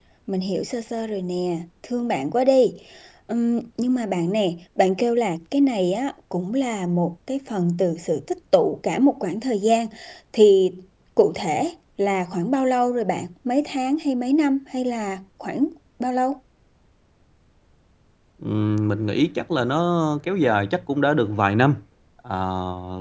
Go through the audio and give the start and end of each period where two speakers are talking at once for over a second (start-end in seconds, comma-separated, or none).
none